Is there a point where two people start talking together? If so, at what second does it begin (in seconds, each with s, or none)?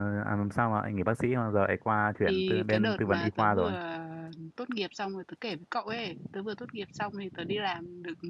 2.2 s